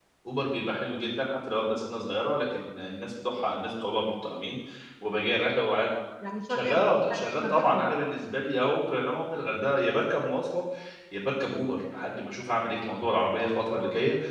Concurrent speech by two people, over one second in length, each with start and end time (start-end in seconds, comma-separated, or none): 6.5-8.1